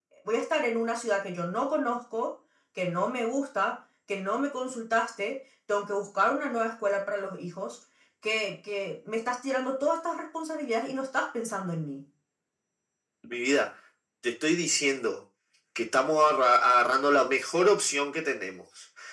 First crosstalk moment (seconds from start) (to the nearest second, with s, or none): none